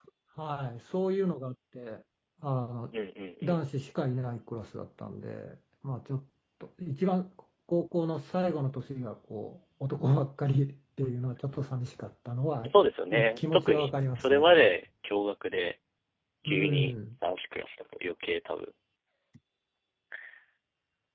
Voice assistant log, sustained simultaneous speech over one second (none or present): present